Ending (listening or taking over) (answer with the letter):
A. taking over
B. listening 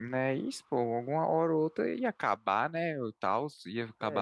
A